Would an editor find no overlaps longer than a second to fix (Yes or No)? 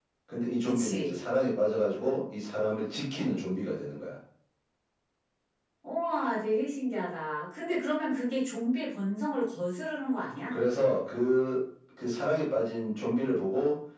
Yes